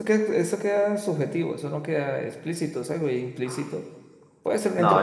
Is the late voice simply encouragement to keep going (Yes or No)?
No